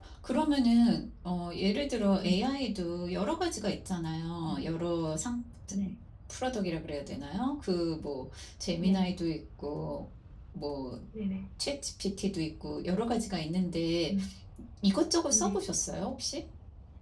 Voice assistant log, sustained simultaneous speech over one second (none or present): none